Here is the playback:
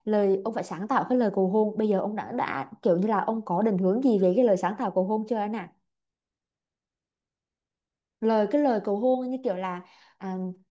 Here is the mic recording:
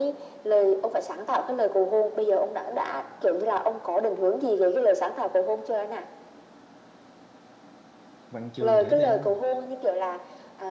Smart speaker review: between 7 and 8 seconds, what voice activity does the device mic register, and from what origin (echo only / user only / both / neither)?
neither